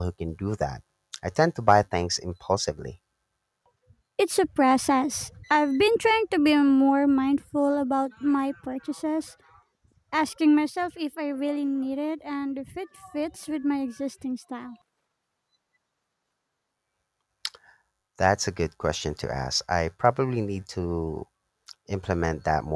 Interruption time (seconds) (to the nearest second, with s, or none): none